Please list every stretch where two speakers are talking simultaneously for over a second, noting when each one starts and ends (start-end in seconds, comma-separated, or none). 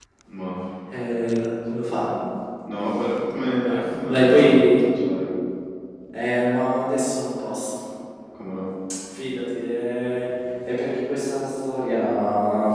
3.6-4.8